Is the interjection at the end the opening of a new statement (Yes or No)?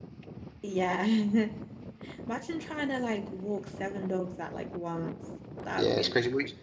Yes